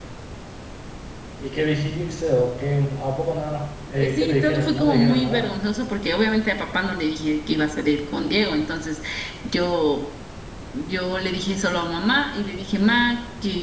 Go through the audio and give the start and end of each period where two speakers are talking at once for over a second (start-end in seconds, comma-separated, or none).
4.0-5.5